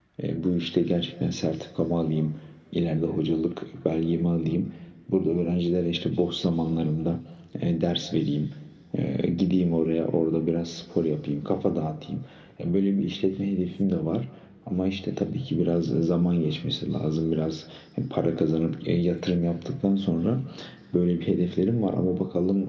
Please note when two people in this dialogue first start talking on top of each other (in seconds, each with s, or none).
none